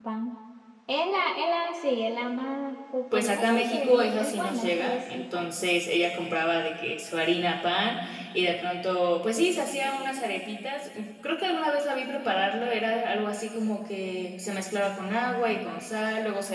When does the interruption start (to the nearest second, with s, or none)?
3 s